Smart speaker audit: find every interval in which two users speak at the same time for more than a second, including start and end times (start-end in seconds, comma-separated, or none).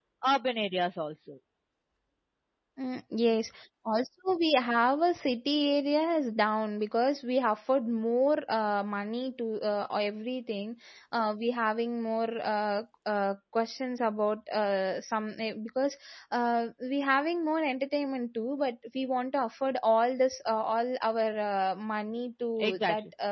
none